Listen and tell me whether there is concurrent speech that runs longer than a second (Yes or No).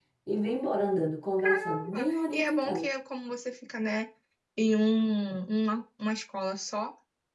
Yes